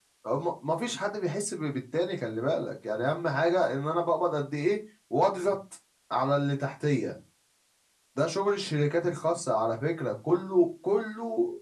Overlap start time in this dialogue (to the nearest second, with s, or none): none